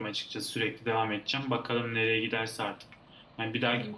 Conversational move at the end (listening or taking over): listening